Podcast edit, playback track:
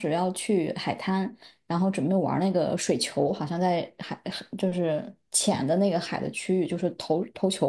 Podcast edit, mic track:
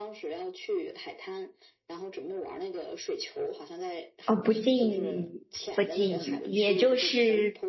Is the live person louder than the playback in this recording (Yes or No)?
Yes